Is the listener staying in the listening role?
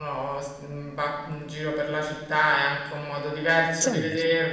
Yes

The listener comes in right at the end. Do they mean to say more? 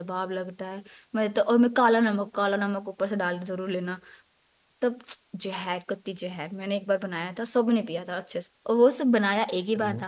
No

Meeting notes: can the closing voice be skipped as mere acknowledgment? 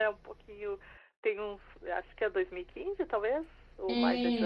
No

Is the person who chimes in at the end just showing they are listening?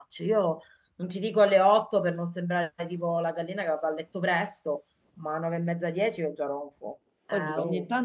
No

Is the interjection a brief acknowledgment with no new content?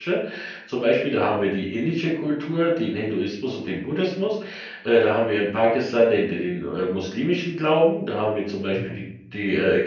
Yes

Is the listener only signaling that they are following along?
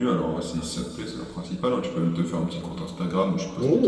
No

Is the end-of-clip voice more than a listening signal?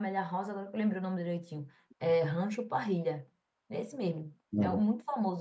No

